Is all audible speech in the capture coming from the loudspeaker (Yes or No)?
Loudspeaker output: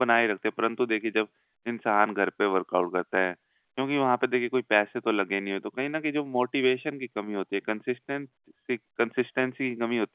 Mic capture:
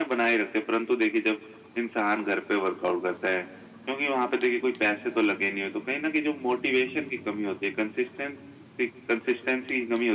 Yes